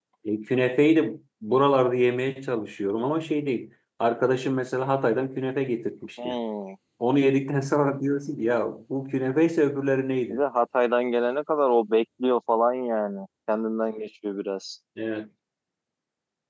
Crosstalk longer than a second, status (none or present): none